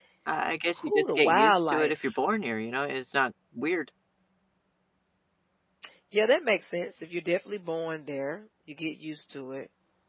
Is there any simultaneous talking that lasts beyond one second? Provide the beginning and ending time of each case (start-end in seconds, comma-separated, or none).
0.8-2.0